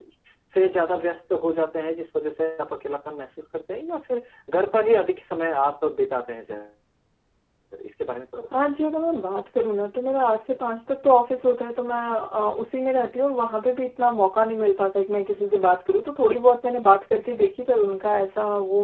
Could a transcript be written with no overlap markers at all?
Yes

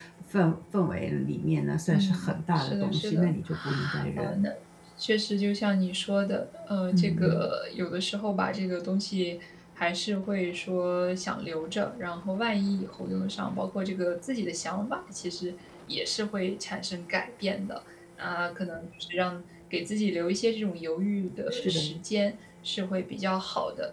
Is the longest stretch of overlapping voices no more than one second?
No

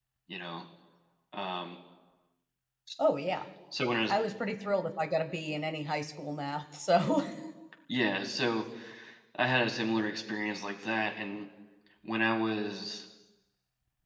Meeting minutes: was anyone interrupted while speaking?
No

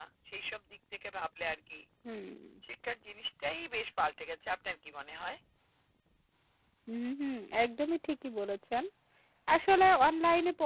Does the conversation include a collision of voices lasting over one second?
No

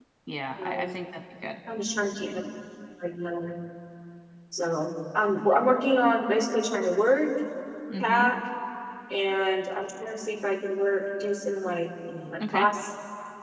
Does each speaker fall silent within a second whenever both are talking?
Yes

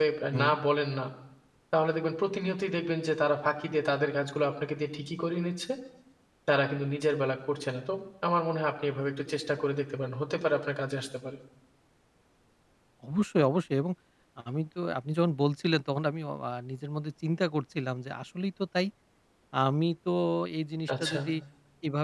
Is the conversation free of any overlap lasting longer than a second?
Yes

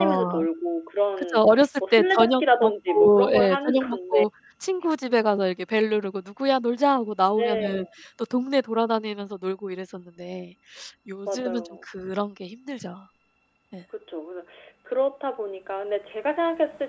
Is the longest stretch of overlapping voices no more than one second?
No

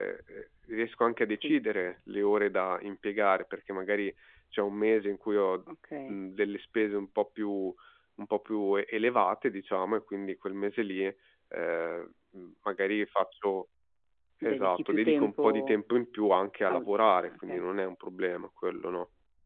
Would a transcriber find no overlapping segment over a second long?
No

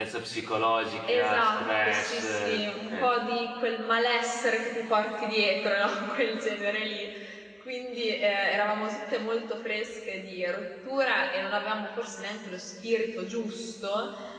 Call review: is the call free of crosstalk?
No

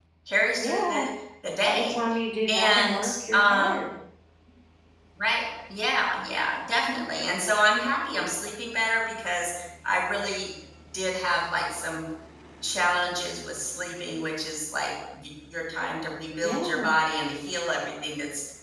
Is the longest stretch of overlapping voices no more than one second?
No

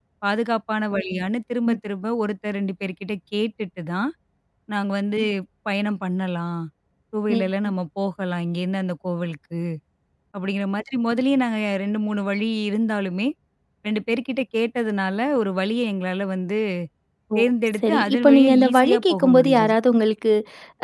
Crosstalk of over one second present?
Yes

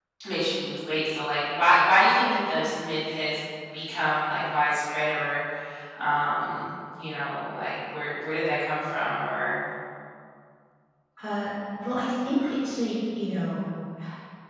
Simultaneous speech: No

